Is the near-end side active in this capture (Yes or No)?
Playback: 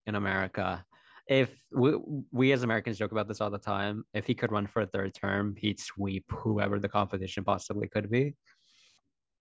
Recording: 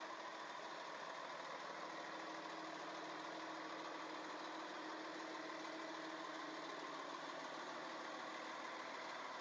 No